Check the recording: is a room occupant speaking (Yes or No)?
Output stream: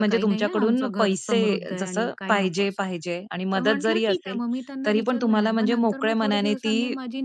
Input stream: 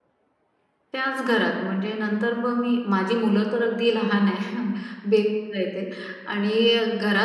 Yes